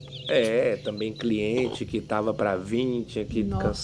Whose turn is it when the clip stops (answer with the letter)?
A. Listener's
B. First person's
B